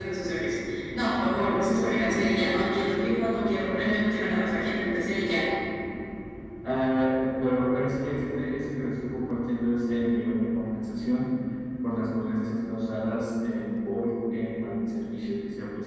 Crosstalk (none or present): none